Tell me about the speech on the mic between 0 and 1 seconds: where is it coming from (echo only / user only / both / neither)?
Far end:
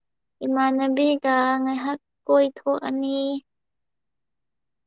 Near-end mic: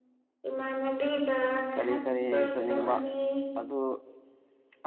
echo only